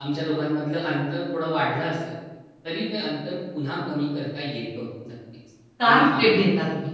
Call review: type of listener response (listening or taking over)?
taking over